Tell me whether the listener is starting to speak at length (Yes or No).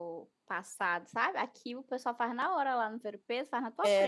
Yes